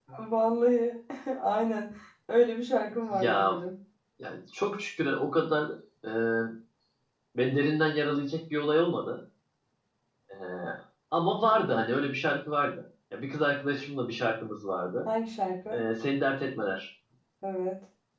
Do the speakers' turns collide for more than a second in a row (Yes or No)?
No